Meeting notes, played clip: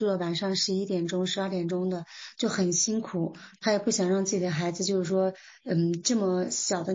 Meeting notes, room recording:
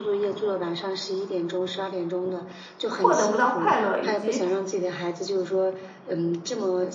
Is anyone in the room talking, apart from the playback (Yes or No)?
Yes